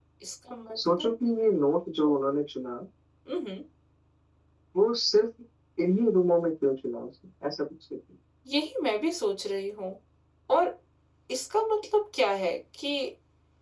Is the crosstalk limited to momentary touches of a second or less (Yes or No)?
Yes